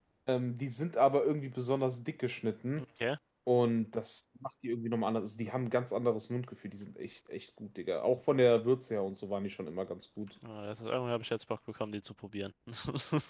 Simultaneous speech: No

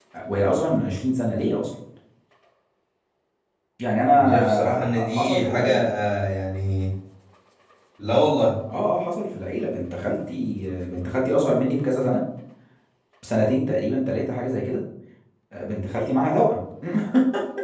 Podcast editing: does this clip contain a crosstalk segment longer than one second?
Yes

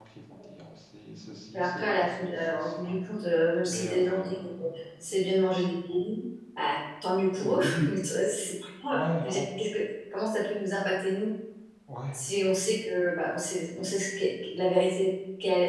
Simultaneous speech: Yes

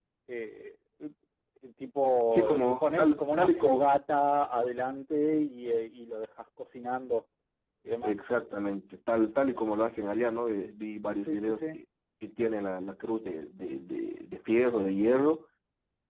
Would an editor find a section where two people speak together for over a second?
Yes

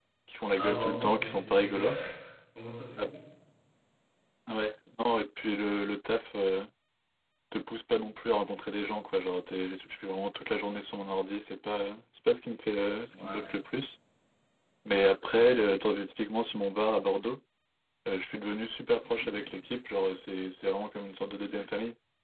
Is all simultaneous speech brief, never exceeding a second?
No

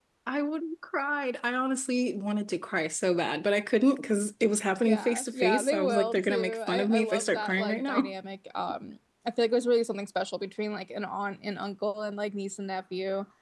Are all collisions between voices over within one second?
No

